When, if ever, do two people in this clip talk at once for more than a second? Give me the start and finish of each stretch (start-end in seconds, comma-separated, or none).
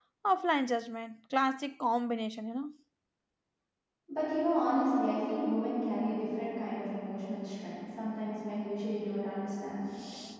none